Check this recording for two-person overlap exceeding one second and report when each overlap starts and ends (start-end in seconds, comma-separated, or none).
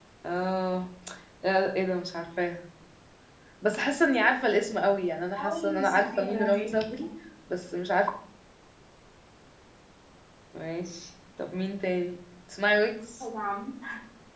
5.4-7.1